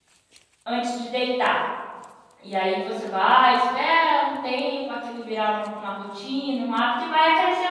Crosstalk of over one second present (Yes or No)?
No